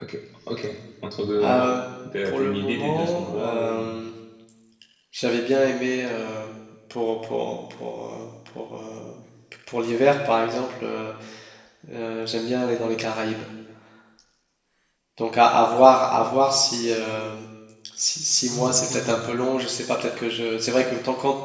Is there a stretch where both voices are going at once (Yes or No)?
Yes